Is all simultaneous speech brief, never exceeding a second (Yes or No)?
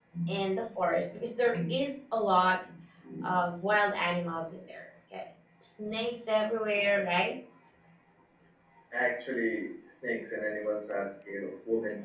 Yes